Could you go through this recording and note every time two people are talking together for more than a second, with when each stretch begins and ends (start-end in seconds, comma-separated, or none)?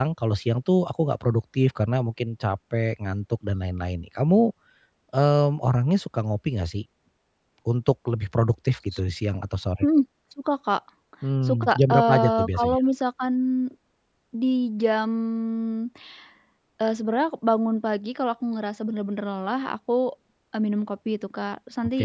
11.5-12.8